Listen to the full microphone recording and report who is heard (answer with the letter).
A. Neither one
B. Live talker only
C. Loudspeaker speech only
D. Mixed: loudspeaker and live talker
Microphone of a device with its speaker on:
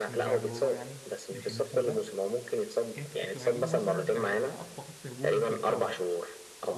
D